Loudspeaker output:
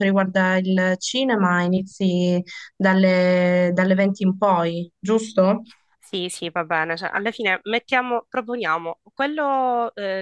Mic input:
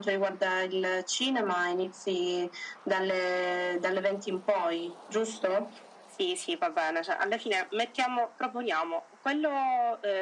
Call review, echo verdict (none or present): present